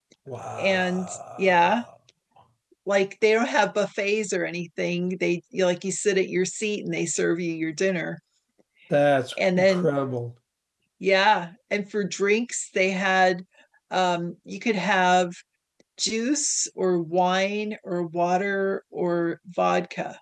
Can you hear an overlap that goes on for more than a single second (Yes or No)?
Yes